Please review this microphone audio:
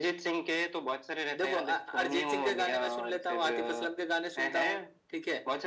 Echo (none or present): present